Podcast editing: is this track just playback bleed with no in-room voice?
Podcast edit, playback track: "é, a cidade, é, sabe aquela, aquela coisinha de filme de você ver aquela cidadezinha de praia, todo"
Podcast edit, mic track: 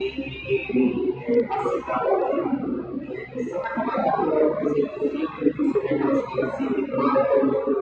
Yes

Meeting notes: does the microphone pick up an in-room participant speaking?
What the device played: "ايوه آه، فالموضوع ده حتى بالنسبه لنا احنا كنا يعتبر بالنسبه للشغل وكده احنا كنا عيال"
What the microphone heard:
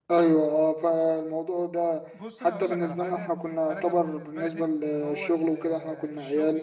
Yes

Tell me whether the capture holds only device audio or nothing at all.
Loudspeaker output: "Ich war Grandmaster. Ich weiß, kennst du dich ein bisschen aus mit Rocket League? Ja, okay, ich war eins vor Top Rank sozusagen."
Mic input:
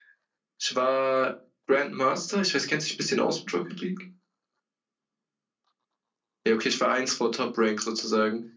Yes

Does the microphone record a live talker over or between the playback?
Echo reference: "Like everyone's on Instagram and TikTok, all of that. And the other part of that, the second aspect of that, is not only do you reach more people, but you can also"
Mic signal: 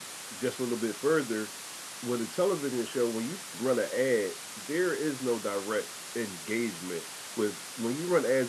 Yes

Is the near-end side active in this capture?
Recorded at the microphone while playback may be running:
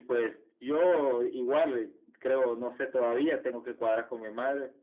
No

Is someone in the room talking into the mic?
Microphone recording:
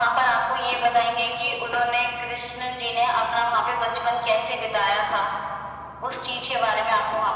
No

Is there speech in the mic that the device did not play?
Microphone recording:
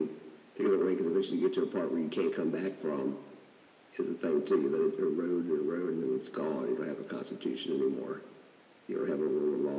No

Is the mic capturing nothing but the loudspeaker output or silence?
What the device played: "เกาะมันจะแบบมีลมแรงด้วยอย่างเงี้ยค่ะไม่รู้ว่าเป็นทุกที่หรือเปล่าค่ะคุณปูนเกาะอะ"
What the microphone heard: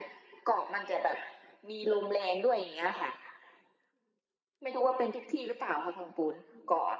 Yes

